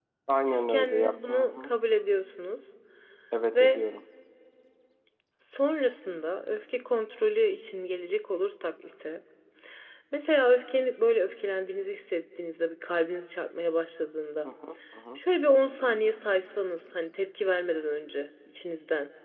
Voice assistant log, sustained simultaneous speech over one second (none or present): present